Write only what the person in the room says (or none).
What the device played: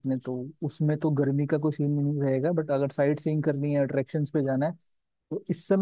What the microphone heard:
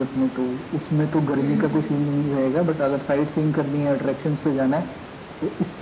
हम्म